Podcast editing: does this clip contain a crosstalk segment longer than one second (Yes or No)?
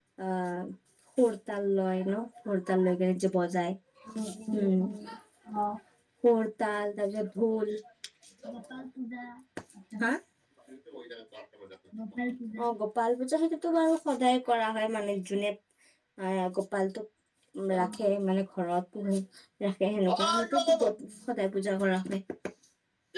No